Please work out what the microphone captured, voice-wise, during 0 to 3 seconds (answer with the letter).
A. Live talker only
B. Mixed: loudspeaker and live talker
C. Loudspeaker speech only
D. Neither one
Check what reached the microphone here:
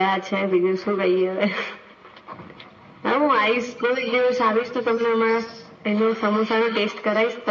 C